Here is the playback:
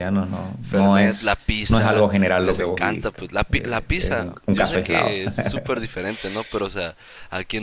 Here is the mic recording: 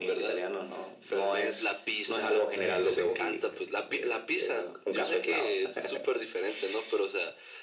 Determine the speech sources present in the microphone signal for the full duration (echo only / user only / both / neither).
both